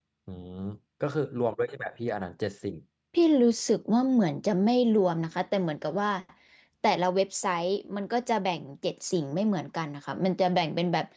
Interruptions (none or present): none